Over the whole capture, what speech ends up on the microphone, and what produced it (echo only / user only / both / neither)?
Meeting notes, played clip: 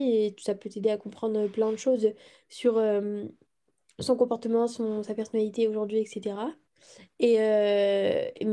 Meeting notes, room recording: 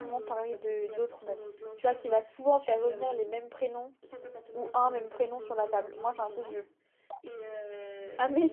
both